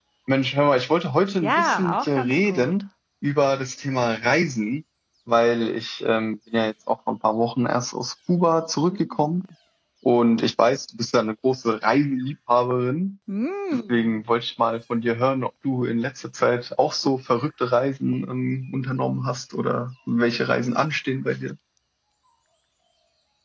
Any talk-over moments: Yes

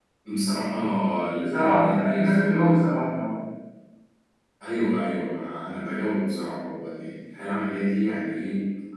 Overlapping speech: Yes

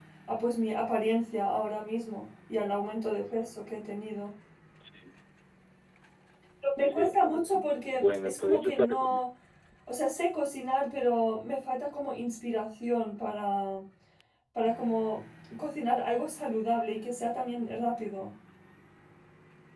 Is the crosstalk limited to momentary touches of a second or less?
No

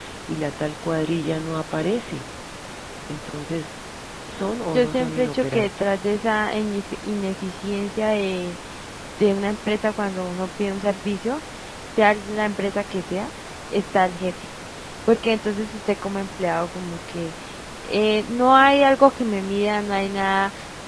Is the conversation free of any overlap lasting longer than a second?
No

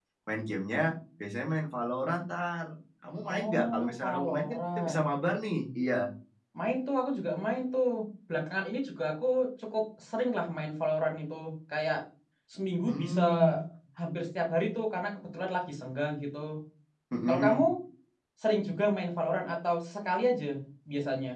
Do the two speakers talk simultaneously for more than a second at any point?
Yes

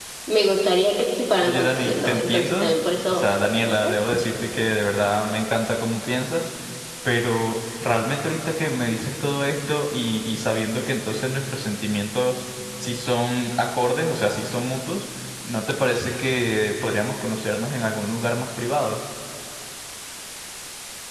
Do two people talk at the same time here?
Yes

